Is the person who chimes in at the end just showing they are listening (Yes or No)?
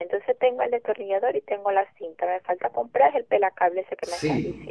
No